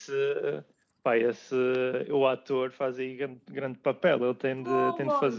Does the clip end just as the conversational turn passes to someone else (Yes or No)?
No